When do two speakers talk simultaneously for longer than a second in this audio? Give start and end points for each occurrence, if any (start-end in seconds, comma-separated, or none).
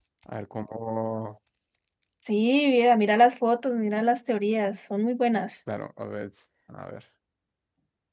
none